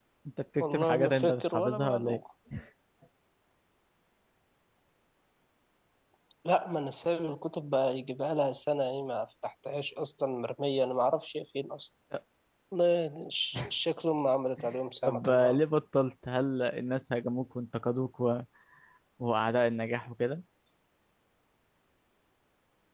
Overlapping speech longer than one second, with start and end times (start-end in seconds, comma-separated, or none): 0.6-2.2